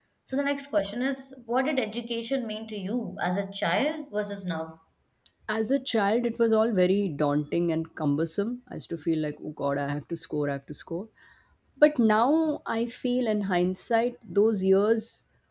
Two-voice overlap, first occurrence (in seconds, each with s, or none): none